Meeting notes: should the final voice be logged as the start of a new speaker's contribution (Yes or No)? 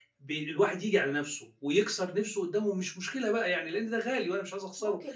Yes